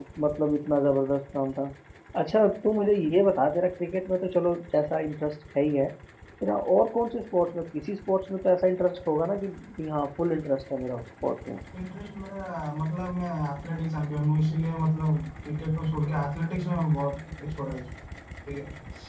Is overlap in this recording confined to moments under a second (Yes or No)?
Yes